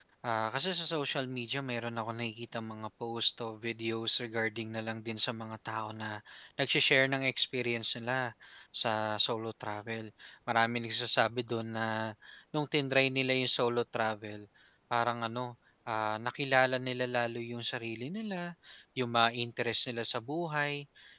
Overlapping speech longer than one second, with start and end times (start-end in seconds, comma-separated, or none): none